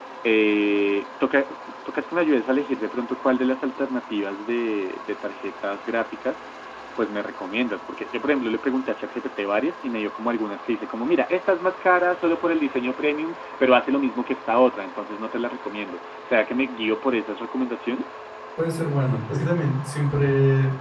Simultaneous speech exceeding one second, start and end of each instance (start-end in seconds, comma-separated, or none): none